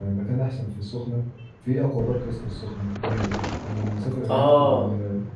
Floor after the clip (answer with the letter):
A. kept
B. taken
A